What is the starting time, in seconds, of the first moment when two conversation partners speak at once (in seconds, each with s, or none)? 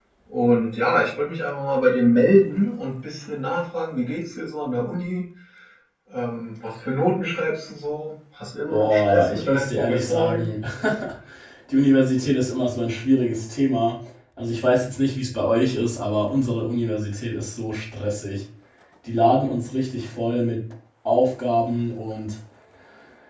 8.7 s